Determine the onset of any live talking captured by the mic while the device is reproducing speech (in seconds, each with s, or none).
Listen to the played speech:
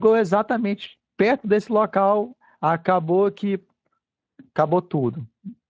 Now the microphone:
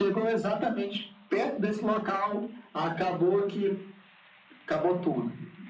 none